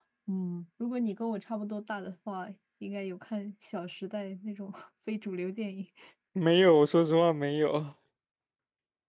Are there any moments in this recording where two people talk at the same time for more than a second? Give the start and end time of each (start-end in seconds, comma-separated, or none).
none